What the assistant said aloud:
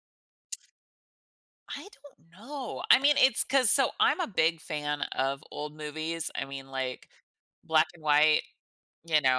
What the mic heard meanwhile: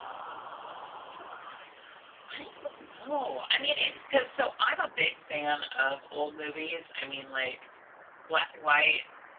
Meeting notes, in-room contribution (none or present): none